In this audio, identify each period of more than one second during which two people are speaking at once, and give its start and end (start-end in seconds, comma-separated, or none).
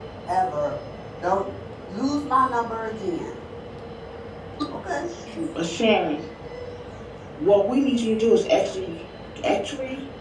none